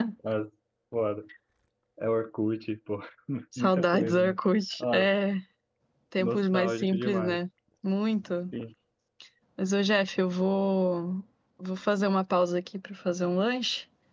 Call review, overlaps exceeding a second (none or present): present